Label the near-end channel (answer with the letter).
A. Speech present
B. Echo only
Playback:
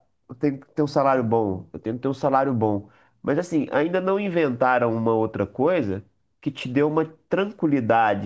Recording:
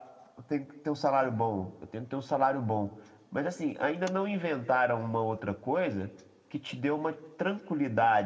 B